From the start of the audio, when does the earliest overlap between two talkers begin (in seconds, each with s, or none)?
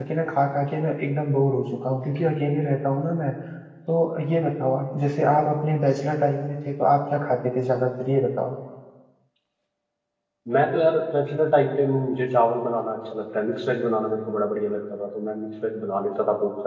none